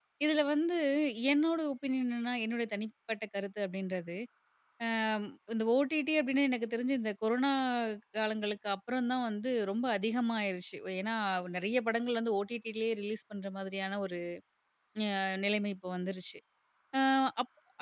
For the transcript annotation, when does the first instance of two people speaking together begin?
none

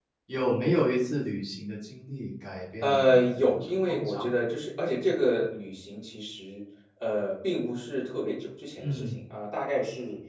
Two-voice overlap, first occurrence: 2.8 s

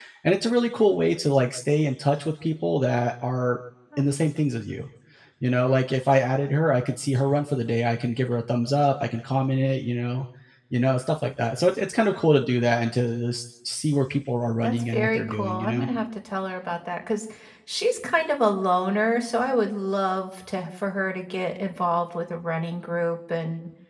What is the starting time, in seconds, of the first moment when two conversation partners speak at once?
14.6 s

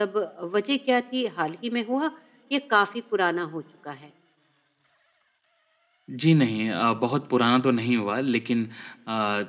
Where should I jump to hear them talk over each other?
none

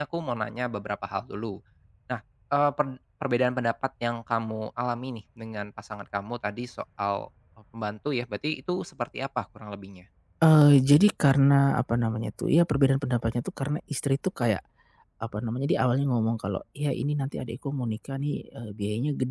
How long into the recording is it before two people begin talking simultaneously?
none

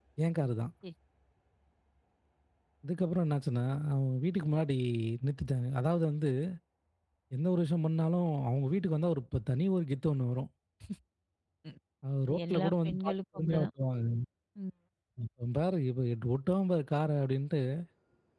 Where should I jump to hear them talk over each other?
12.3 s

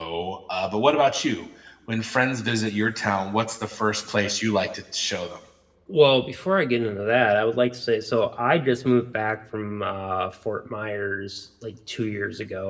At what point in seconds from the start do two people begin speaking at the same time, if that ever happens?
none

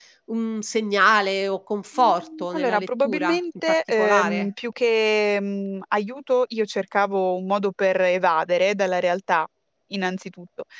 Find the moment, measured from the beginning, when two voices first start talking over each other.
1.9 s

